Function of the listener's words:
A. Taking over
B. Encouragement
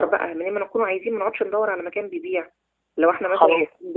A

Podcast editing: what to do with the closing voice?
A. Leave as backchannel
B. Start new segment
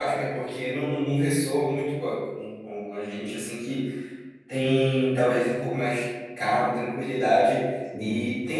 A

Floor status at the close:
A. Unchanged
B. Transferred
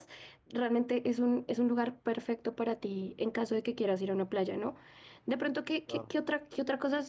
A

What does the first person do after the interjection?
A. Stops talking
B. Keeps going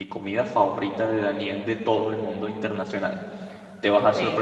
B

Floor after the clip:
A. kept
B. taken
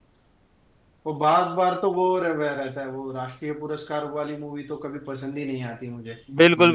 B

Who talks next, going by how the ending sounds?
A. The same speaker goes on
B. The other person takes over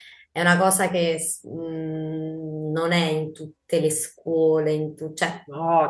B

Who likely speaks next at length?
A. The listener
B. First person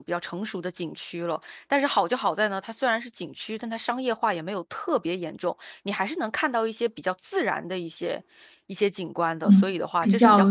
A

